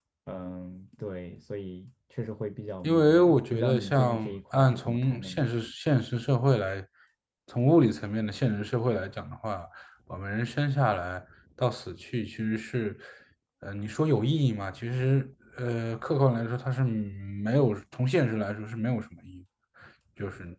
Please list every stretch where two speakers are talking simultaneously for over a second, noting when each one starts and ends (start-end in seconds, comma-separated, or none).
2.8-5.5